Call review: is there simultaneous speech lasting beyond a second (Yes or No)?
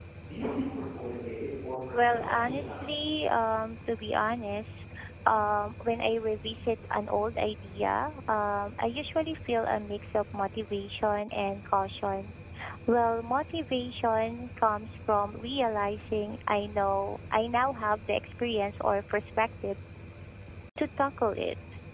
Yes